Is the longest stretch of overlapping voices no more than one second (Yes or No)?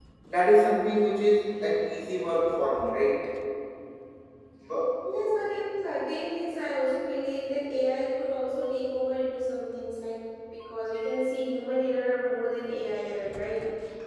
Yes